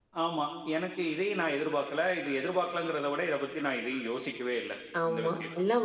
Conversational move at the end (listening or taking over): taking over